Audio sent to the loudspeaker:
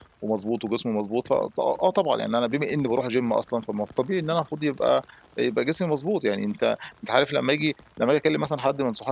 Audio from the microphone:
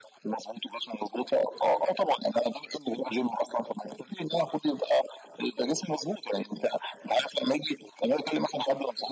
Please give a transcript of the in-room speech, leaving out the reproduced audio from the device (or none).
none